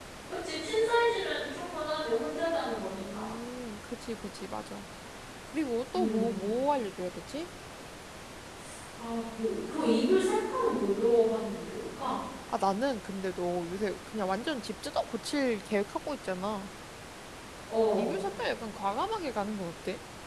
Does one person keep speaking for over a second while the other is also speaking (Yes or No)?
No